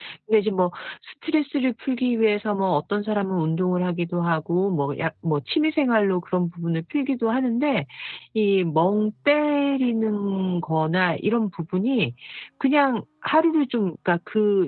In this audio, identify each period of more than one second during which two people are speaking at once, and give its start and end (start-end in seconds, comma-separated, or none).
none